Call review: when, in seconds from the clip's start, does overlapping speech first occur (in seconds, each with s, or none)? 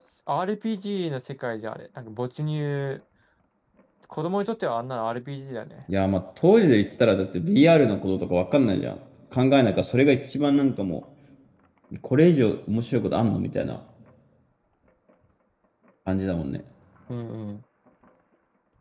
none